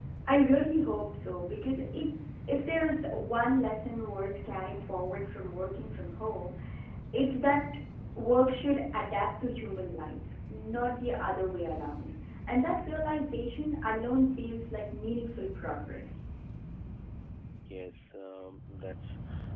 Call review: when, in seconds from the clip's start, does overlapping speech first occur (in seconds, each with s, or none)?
none